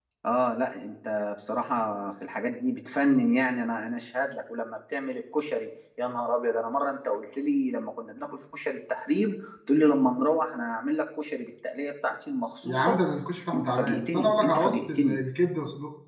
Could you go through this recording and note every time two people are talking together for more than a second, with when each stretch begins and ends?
13.5-15.2

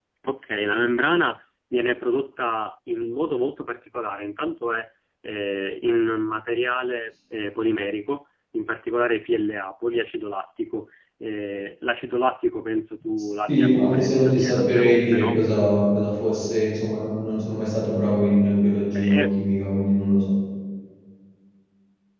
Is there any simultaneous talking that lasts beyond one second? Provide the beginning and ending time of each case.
13.5-15.4

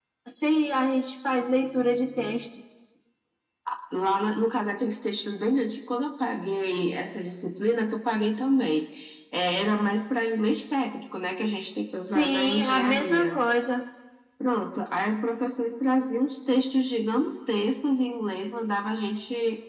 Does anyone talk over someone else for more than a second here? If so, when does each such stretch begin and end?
12.1-13.4

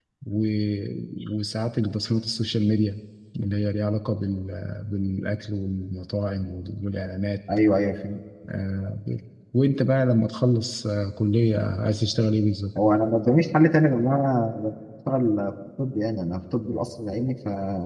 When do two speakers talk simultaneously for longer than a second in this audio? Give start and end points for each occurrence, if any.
none

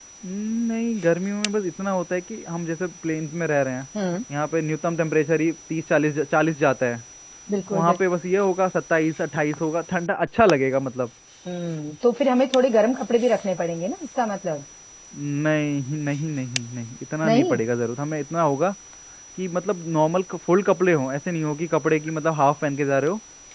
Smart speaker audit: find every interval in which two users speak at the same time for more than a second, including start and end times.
none

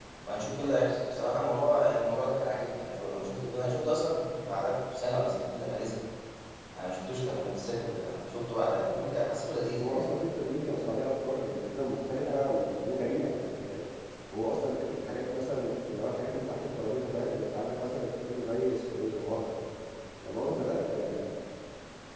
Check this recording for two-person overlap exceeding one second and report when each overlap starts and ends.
none

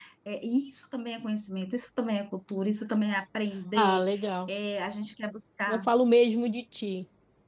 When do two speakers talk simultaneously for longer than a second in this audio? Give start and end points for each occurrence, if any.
none

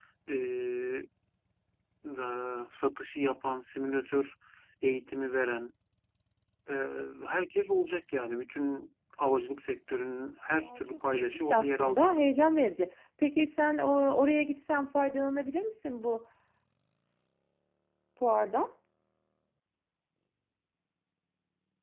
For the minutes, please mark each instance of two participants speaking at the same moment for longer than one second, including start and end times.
10.6-12.2

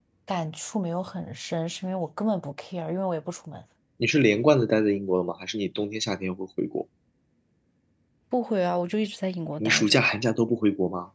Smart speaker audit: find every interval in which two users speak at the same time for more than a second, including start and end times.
none

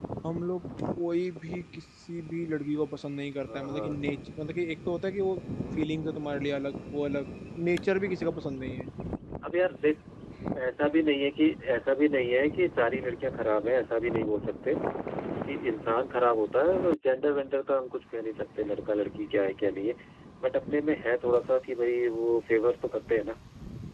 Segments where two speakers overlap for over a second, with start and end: none

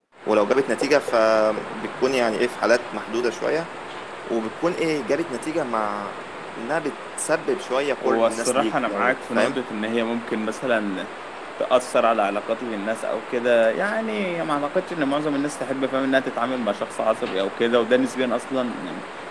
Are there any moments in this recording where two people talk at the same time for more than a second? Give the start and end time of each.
8.0-9.6

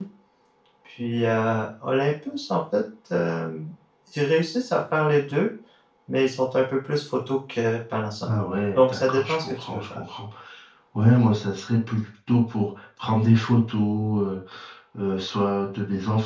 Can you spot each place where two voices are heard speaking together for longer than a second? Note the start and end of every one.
8.8-10.0

